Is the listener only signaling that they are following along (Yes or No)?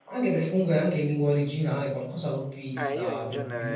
No